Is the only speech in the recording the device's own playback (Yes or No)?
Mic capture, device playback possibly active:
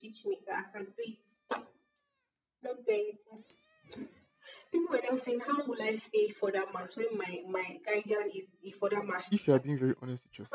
No